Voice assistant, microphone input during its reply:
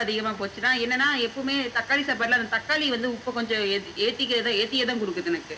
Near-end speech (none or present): none